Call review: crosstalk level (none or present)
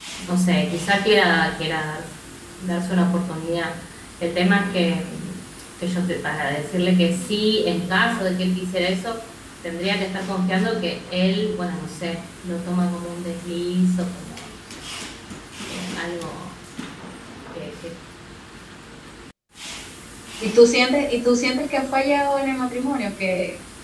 none